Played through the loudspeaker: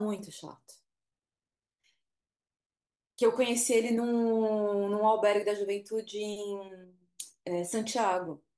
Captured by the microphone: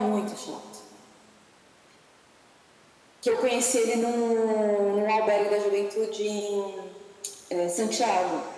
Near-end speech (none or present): none